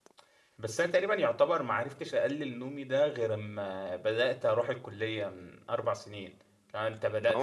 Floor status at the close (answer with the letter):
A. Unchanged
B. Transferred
B